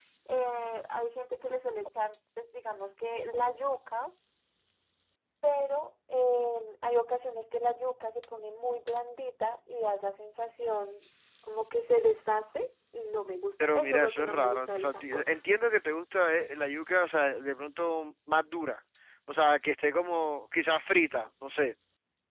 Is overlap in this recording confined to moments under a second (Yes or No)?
No